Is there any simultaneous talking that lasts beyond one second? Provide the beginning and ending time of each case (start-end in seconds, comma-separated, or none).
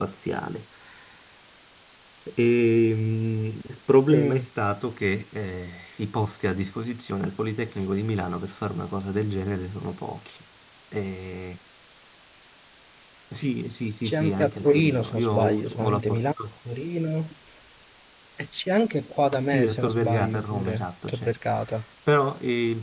14.0-16.3, 19.5-21.3